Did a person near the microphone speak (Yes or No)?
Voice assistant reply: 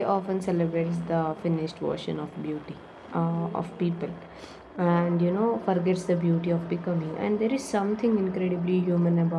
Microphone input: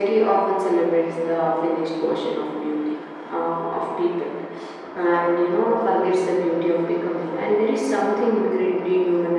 No